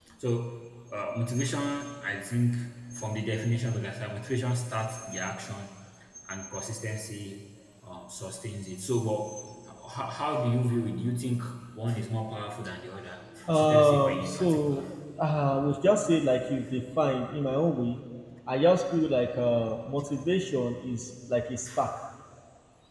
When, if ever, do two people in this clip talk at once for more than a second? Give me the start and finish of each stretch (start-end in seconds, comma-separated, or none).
13.5-14.8